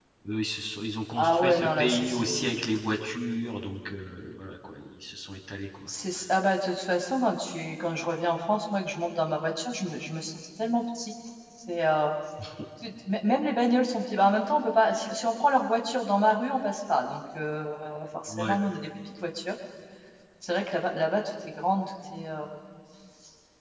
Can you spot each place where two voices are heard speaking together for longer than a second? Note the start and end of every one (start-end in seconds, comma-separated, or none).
1.2-2.6